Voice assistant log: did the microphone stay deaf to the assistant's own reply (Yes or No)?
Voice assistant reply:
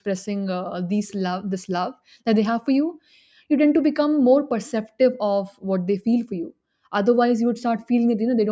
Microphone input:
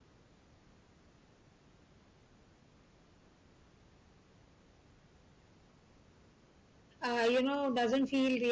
Yes